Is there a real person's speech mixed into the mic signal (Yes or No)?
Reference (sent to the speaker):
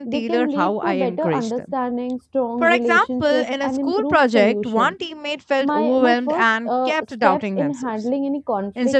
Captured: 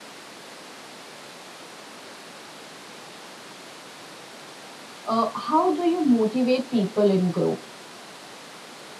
Yes